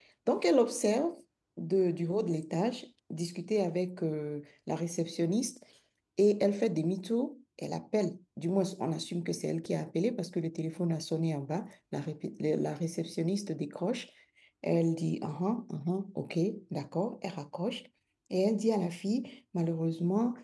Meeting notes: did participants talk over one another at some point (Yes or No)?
No